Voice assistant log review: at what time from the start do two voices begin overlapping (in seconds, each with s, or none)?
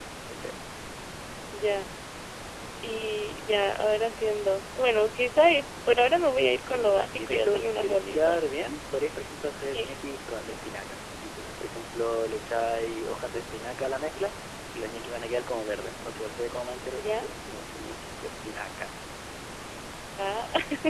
6.6 s